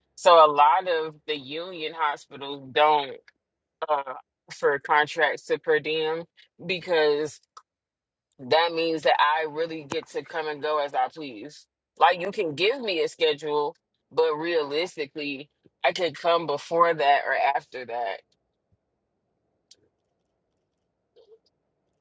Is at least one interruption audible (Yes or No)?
No